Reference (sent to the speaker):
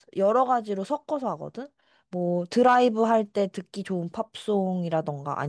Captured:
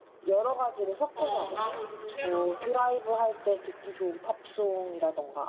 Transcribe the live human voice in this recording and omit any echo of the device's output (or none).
어, 나도 요즘 새로운 노래 찾고 있어서.